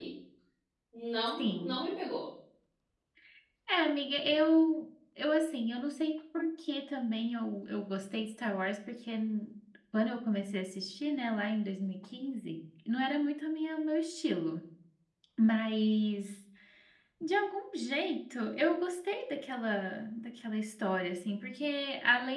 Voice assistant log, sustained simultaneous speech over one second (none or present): none